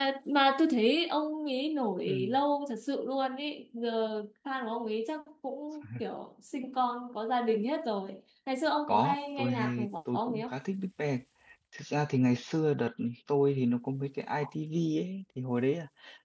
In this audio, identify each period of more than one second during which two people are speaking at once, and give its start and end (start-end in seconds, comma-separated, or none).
8.9-10.6